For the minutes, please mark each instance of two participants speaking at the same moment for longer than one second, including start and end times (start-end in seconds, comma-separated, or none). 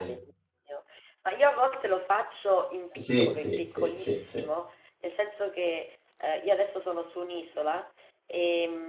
3.0-4.4